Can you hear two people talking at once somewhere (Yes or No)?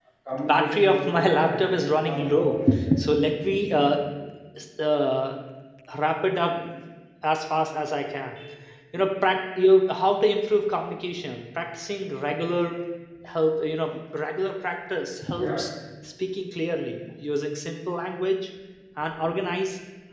Yes